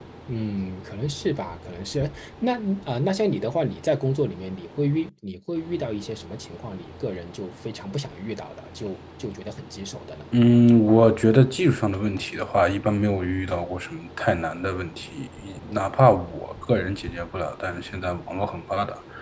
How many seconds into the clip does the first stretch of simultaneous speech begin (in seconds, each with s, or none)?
none